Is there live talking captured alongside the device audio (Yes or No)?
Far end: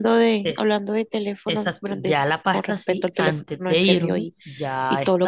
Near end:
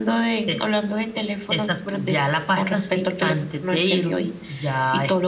No